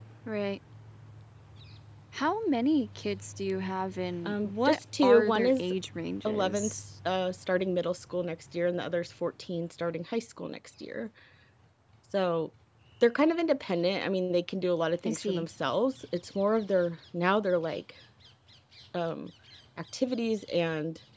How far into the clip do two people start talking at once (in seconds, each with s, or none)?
4.2 s